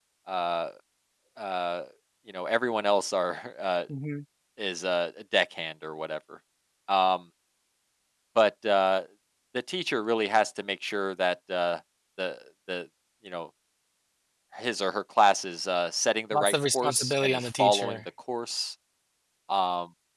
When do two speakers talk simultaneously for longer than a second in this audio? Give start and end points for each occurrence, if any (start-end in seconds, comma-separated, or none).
16.3-18.0